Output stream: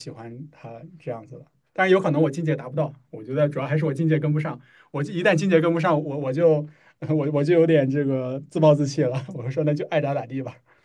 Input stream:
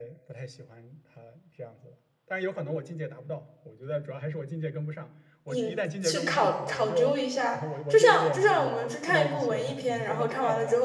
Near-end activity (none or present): present